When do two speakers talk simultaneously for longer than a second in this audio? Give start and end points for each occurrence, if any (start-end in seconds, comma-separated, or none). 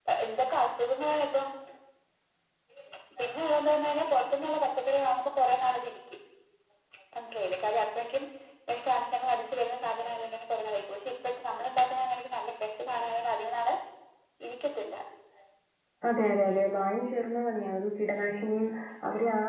none